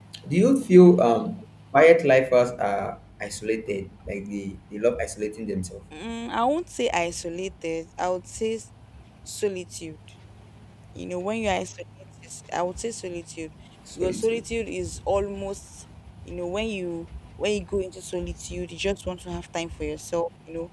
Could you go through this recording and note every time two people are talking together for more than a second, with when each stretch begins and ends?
none

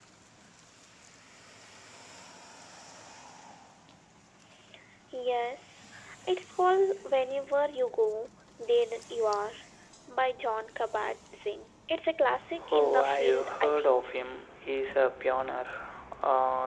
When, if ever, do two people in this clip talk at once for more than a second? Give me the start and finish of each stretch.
12.7-14.1

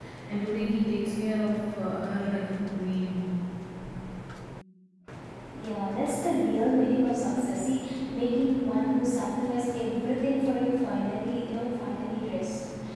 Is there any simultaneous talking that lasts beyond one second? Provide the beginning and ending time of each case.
none

